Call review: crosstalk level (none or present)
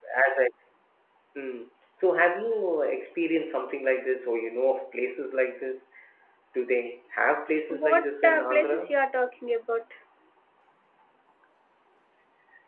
present